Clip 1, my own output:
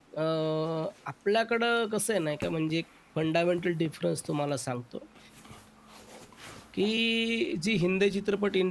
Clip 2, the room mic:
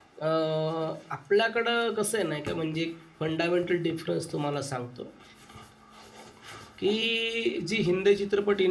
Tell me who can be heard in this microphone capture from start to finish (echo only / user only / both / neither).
echo only